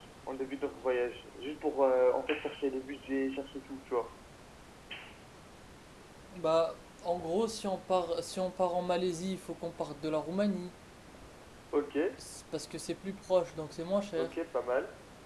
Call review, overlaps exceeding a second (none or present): none